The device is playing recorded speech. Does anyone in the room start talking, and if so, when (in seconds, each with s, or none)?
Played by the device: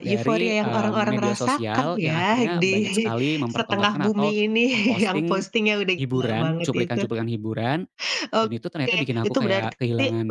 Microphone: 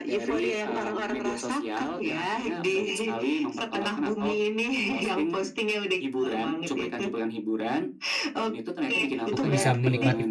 9.3 s